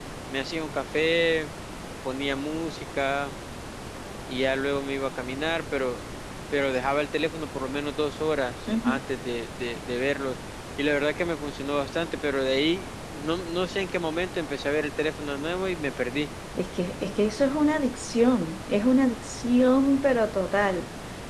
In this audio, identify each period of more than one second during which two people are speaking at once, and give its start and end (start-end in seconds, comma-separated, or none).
none